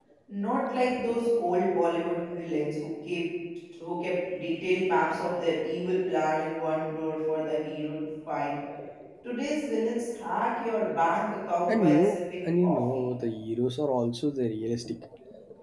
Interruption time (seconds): 11.7 s

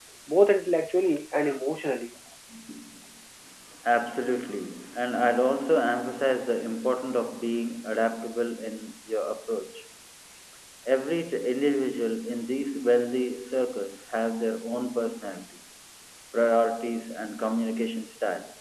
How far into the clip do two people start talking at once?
none

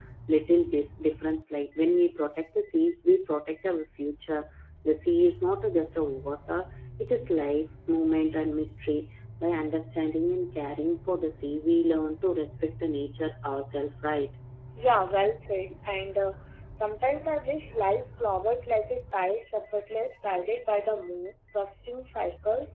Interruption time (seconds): none

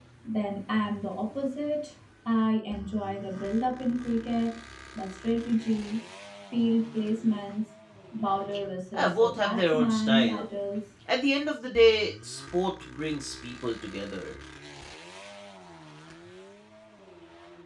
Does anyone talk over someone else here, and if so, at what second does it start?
8.9 s

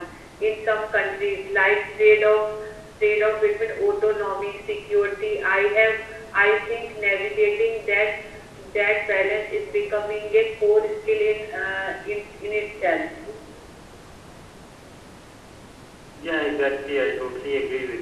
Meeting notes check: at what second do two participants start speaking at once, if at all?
none

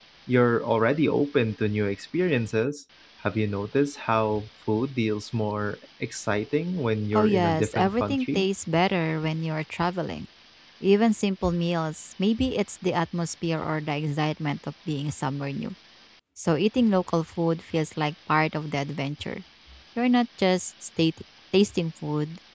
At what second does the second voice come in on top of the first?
7.1 s

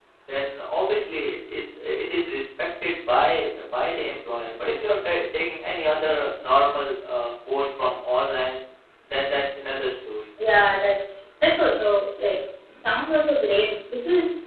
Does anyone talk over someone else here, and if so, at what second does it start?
none

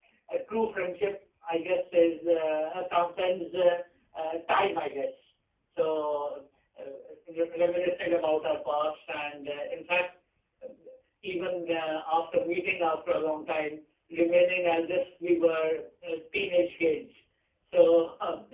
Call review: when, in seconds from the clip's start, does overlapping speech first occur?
none

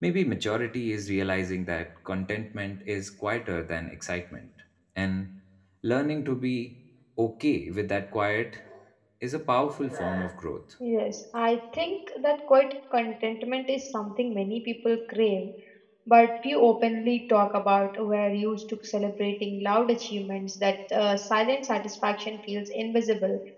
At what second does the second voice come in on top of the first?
none

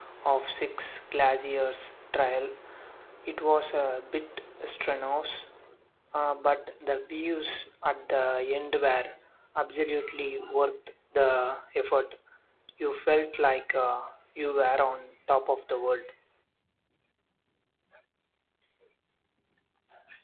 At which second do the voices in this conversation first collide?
none

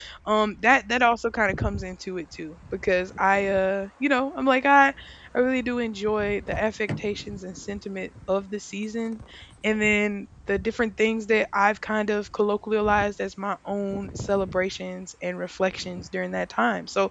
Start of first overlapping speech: none

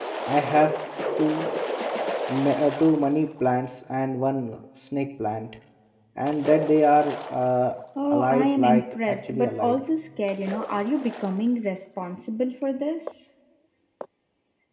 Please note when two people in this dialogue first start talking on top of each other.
8.1 s

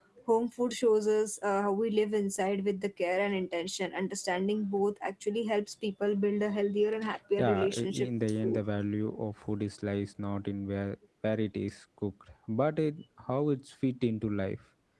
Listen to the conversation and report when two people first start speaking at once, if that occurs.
7.4 s

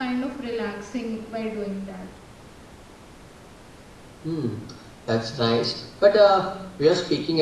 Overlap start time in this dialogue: none

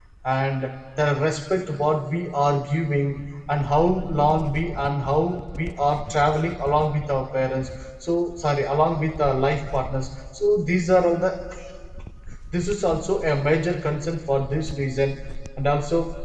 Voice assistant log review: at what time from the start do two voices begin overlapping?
none

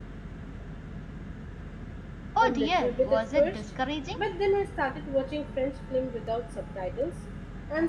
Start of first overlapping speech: 2.4 s

